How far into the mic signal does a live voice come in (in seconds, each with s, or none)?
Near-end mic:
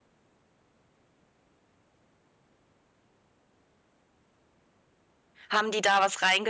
5.5 s